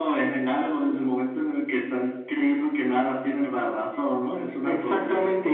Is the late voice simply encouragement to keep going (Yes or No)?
No